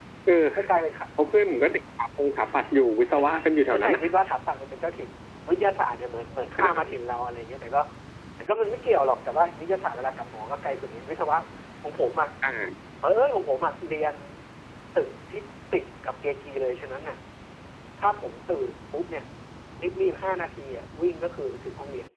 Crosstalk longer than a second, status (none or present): none